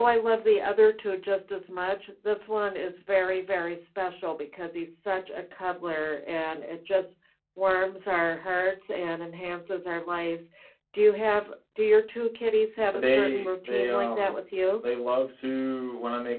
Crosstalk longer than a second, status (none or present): present